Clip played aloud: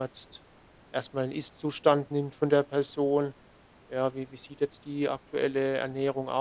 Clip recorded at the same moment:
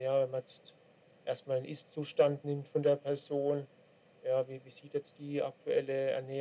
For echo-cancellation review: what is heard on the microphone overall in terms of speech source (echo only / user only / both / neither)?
echo only